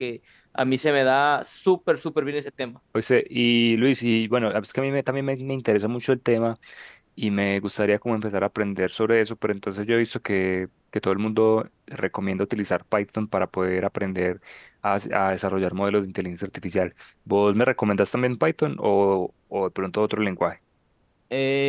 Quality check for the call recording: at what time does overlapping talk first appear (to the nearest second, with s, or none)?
none